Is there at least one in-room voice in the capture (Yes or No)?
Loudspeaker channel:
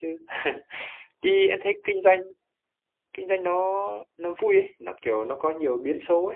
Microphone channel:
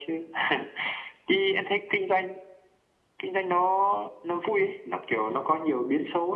No